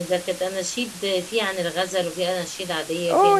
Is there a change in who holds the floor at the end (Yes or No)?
Yes